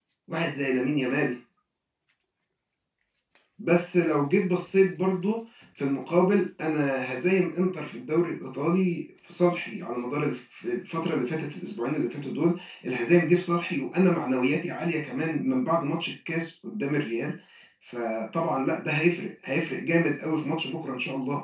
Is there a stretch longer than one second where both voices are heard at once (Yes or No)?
No